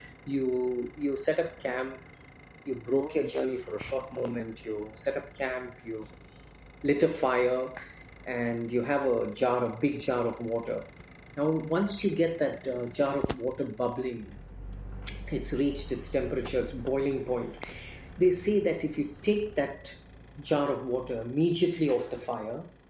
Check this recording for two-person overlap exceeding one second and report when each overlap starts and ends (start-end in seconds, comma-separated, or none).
none